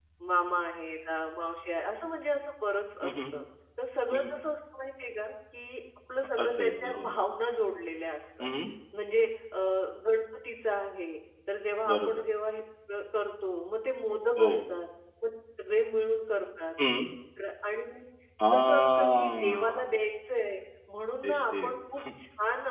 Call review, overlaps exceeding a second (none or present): present